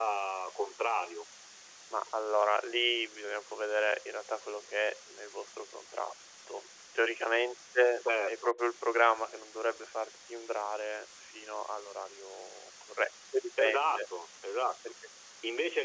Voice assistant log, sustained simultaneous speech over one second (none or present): none